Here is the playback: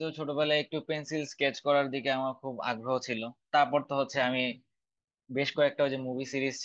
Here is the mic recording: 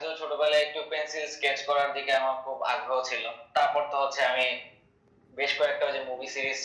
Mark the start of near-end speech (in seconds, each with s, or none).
none